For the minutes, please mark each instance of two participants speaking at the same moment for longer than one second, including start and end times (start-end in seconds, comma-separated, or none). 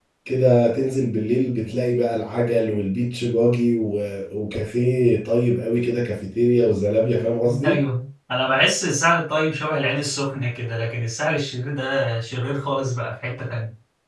none